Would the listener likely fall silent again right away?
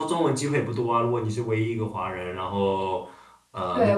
No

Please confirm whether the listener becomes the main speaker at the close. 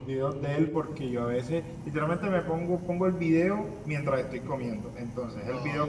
No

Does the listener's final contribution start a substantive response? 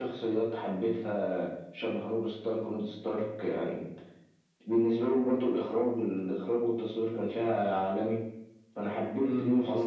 Yes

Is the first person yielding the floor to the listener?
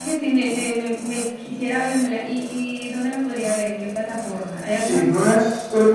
Yes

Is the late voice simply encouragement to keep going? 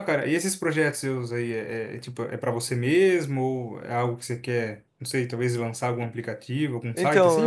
No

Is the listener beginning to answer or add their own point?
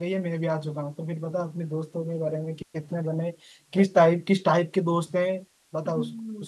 Yes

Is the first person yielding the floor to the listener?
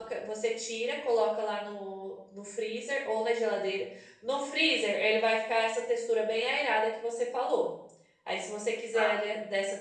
No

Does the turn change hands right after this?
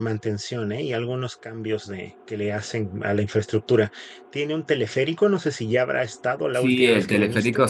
Yes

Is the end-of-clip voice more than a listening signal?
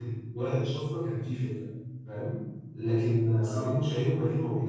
No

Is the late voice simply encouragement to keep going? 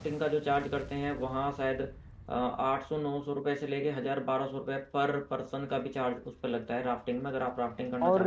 No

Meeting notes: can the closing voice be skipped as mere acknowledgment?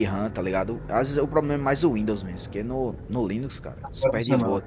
Yes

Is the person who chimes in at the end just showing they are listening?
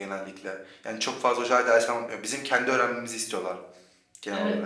No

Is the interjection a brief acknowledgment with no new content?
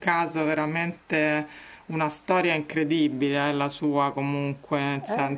No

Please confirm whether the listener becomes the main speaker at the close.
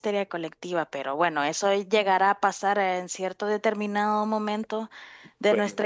No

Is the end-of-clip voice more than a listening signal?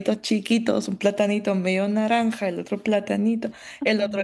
No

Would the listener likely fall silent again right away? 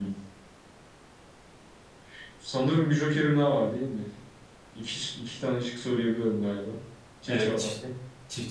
No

